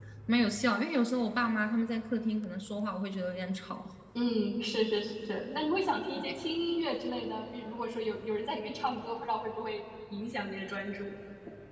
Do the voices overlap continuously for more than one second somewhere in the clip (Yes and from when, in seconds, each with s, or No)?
No